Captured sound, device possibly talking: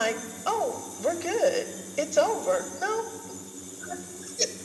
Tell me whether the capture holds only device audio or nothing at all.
Yes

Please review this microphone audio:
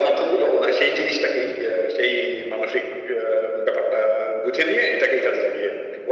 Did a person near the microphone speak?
No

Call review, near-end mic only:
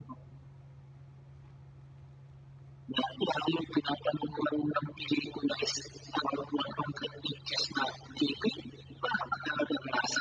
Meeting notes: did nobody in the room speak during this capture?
Yes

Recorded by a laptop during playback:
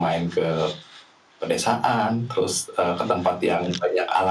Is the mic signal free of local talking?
No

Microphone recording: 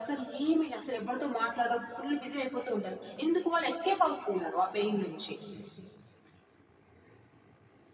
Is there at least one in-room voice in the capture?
No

